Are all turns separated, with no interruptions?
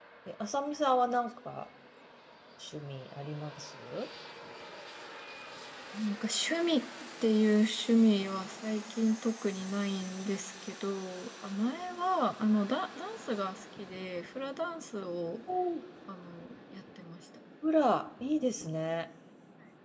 Yes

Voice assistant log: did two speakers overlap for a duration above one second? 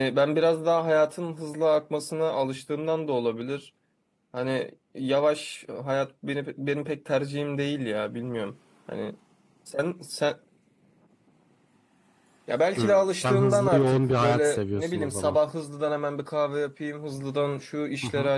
Yes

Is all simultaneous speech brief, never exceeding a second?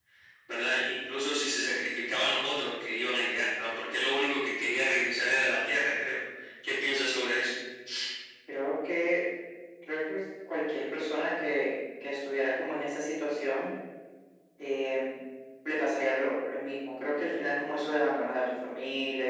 Yes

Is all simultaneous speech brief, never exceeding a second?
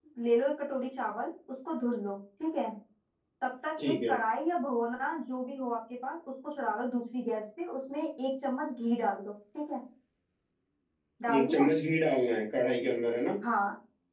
Yes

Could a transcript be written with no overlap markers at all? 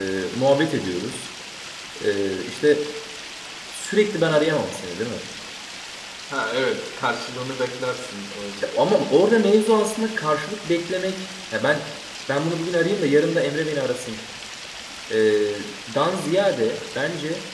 Yes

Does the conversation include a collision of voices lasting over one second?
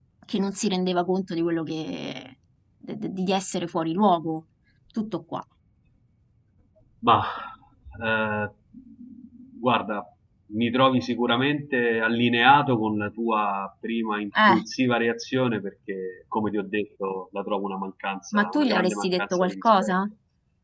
Yes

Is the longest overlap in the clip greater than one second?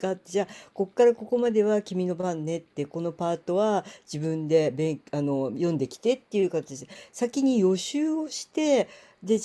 No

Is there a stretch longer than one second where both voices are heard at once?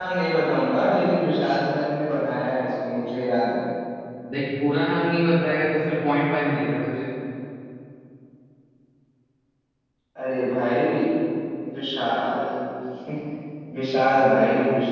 No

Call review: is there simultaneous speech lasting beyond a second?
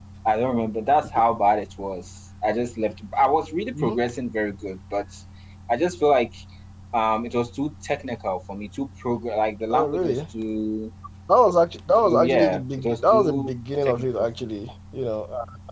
Yes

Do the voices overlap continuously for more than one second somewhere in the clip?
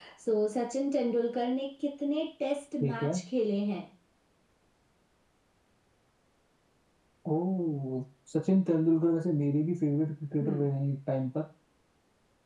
No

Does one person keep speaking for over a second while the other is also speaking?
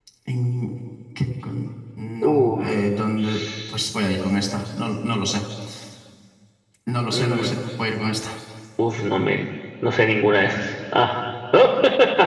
No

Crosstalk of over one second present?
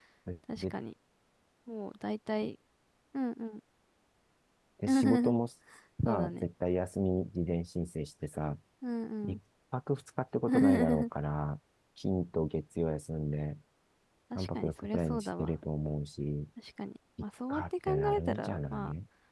Yes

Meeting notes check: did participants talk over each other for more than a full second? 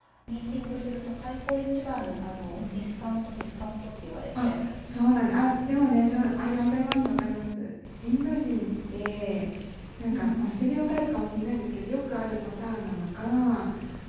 No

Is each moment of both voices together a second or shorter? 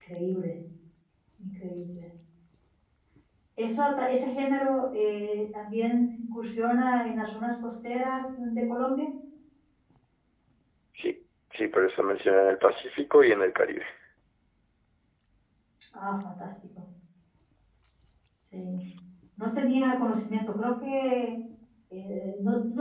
Yes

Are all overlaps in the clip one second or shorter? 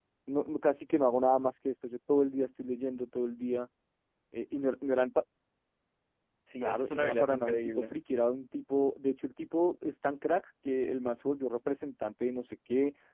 No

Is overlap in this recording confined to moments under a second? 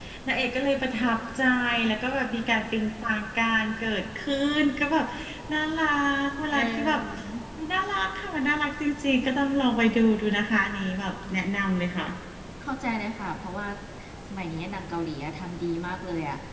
Yes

